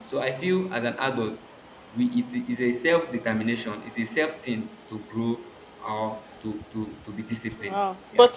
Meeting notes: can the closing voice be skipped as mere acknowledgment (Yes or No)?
No